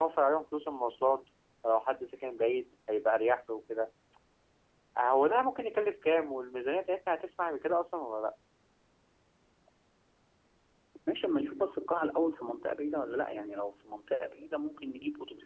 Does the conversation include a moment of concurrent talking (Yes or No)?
No